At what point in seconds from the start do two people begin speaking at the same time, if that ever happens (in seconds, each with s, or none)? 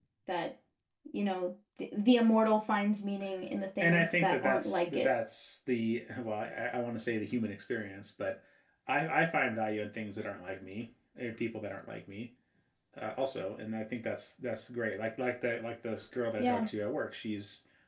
3.8 s